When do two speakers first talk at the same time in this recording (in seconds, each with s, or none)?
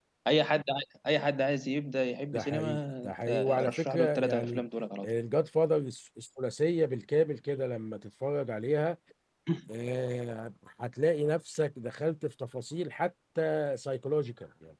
2.3 s